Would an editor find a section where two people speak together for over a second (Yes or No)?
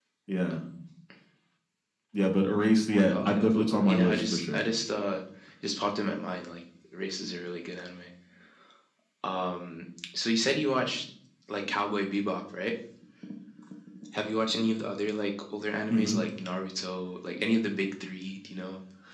Yes